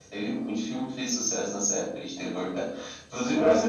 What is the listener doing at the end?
listening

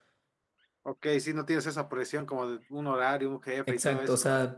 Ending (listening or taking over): taking over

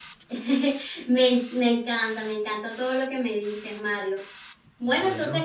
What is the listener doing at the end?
listening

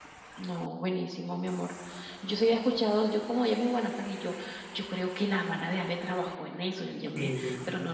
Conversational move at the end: listening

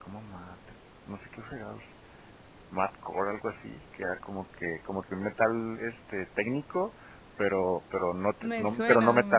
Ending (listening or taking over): listening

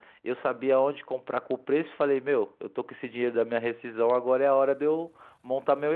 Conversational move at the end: listening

